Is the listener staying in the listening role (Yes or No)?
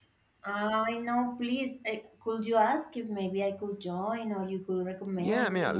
No